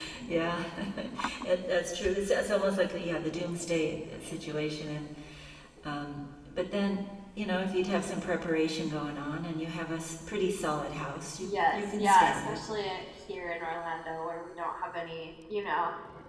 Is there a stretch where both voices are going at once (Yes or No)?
Yes